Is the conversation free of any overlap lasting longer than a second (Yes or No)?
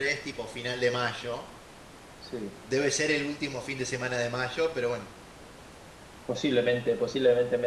Yes